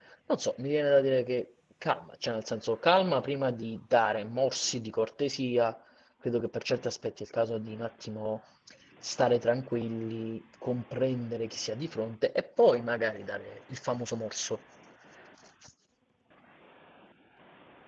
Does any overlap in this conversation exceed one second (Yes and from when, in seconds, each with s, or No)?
No